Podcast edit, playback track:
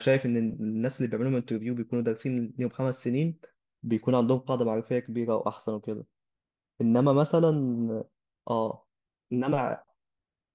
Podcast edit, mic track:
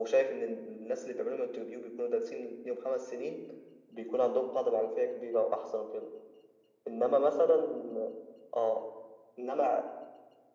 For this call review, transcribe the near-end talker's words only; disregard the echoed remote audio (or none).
none